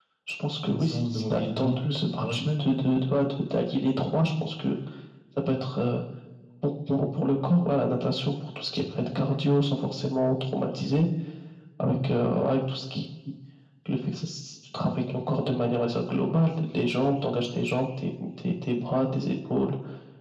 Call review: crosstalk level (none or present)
present